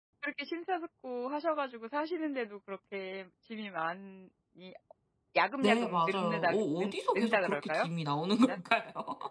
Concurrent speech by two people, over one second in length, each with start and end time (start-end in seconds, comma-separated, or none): 5.6-7.9